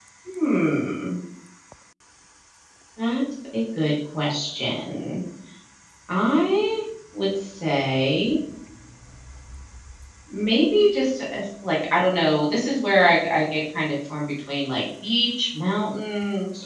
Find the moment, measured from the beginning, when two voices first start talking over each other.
none

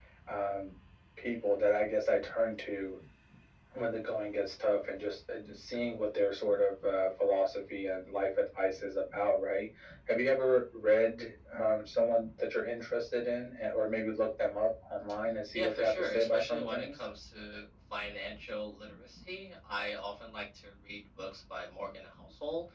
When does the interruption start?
15.5 s

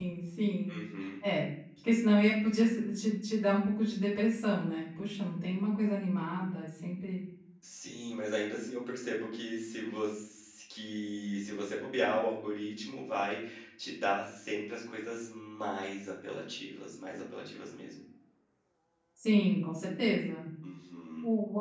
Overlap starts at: none

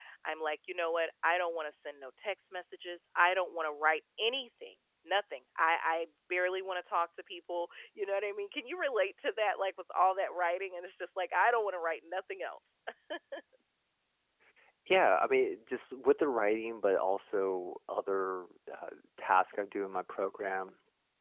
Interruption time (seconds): none

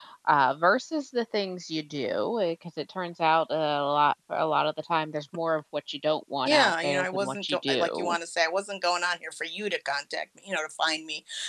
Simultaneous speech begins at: 6.5 s

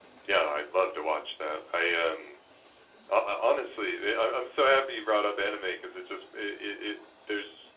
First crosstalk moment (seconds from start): none

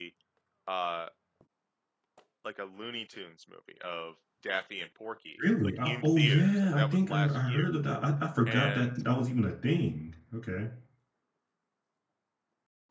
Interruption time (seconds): 5.4 s

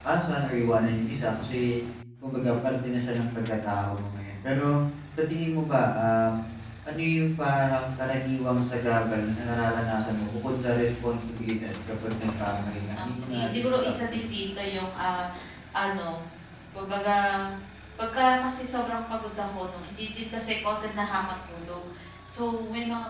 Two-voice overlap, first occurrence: 12.5 s

